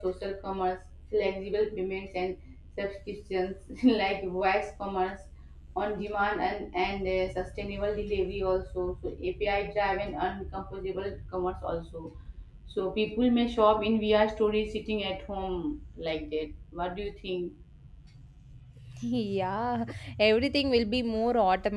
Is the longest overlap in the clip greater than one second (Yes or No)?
No